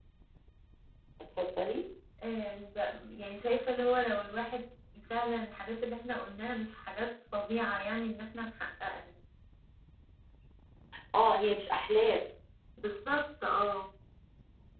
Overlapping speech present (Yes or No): No